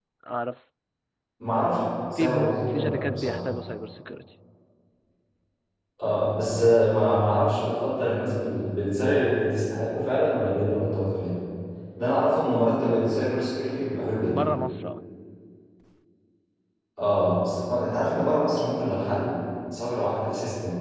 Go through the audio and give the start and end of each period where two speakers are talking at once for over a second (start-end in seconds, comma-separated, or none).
2.2-3.4